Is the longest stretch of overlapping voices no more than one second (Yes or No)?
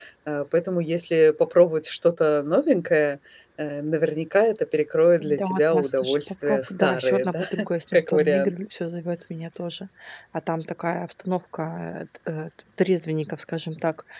No